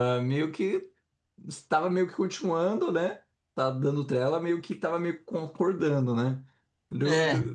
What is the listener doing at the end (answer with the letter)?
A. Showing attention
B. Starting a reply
A